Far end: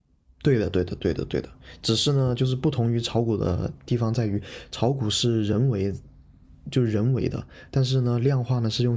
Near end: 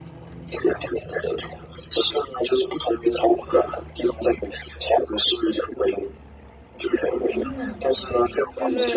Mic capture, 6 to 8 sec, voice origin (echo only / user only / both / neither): both